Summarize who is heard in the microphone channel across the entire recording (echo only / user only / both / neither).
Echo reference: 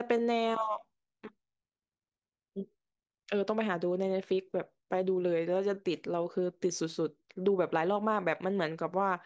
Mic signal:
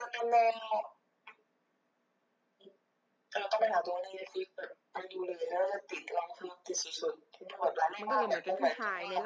both